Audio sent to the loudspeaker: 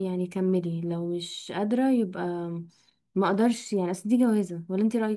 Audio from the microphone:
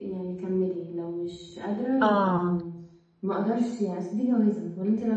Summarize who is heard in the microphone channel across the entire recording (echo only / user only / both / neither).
both